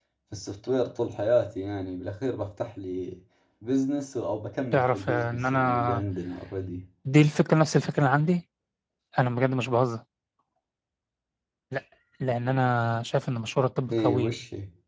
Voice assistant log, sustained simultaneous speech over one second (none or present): present